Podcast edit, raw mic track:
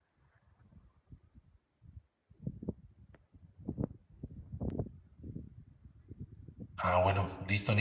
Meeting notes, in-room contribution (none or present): present